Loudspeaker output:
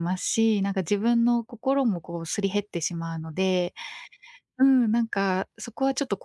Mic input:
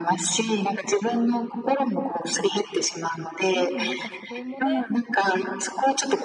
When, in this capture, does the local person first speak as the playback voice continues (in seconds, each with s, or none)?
3.5 s